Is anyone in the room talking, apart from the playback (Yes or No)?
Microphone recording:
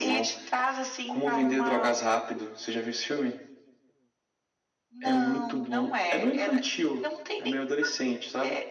No